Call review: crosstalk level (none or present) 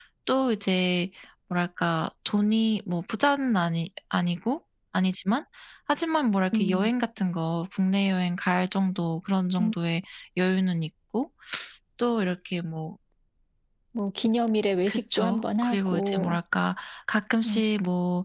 present